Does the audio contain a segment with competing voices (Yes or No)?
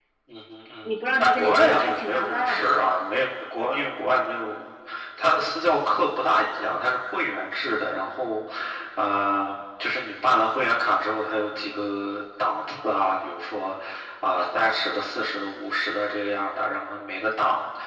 Yes